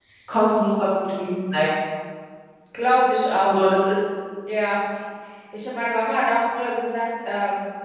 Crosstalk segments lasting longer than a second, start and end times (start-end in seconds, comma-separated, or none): none